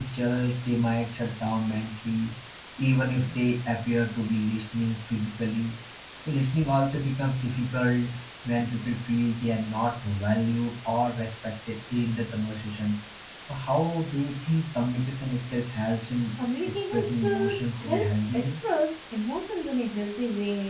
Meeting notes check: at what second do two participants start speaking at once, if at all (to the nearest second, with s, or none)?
17 s